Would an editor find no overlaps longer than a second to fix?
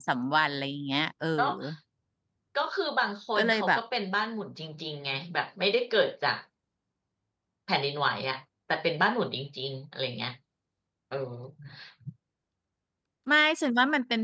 Yes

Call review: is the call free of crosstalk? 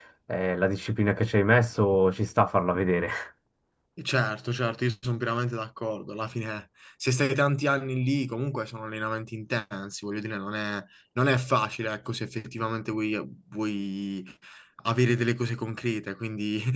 Yes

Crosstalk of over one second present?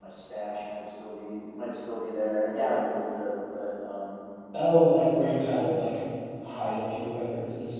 No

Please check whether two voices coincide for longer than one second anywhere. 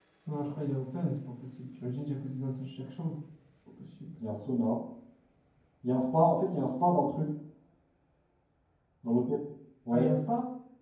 No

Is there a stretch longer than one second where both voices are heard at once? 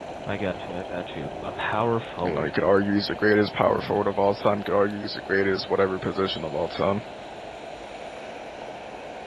No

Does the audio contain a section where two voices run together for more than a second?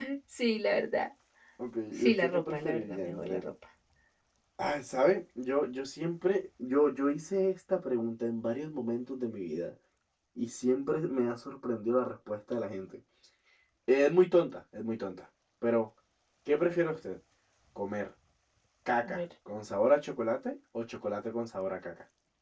Yes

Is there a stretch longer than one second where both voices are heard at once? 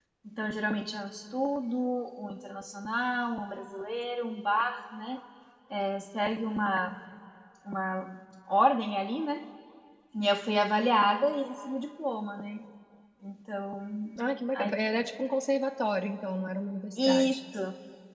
No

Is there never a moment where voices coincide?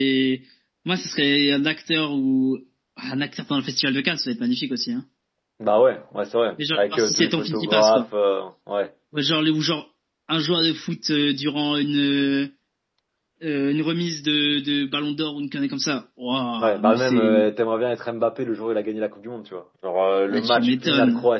No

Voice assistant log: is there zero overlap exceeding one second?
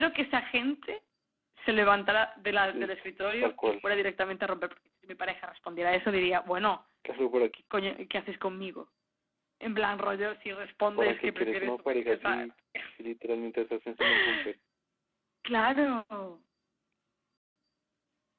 No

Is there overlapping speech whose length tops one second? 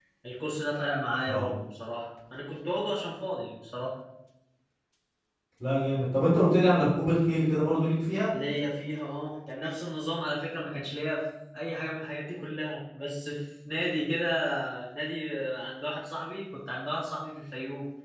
No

